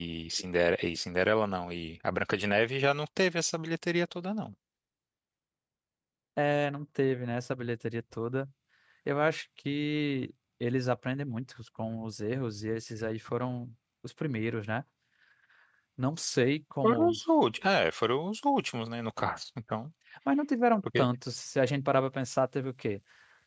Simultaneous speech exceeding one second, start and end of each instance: none

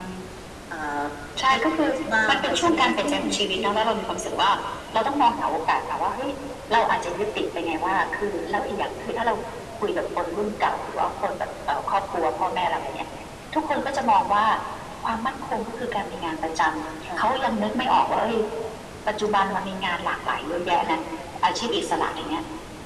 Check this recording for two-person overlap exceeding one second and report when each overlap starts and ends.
2.3-3.7

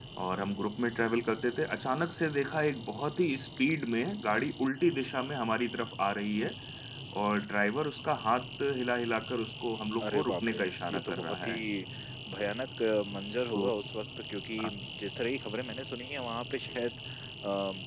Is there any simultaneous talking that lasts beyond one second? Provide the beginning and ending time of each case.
10.0-11.5

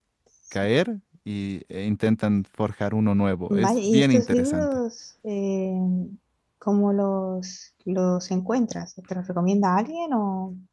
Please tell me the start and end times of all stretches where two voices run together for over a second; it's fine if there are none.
3.5-4.8

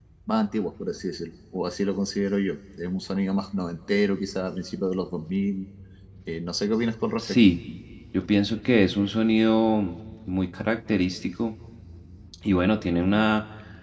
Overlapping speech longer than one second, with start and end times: none

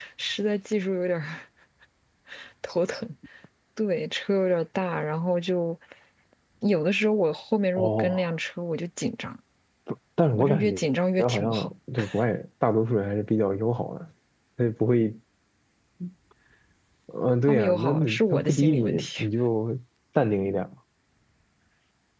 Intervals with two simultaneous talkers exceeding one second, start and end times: 17.5-19.2

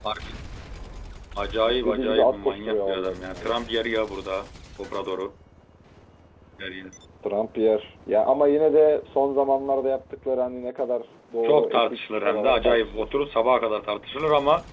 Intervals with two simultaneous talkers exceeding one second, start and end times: 1.7-3.6, 11.4-13.1

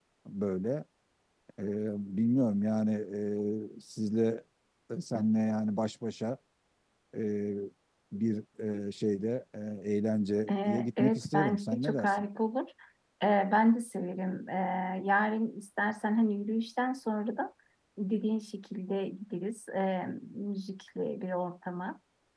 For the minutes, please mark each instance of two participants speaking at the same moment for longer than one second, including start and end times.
10.5-12.1

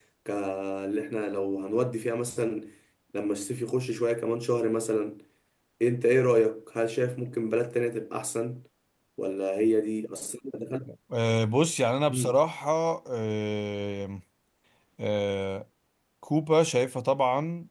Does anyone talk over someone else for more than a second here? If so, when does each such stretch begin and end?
none

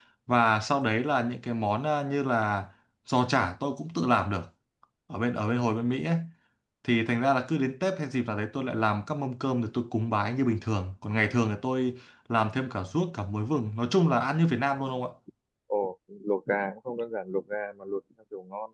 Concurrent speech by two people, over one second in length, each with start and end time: none

